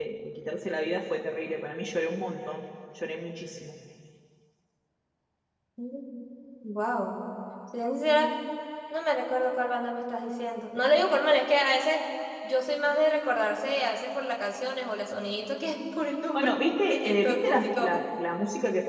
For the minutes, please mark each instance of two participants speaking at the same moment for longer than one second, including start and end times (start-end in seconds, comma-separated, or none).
16.4-17.9